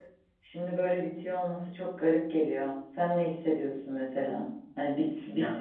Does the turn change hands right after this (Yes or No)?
No